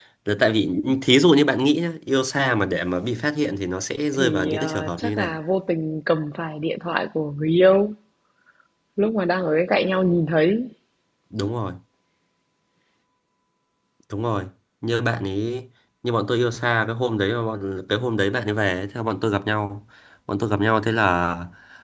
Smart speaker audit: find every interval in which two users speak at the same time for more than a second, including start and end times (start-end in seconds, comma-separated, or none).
4.1-5.4